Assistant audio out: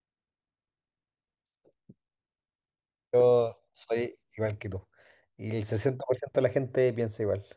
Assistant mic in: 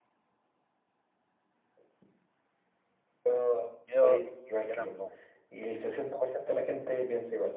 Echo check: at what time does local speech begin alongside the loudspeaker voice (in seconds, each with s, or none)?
3.9 s